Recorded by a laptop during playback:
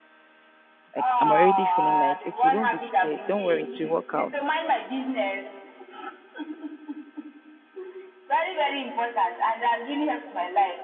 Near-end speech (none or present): present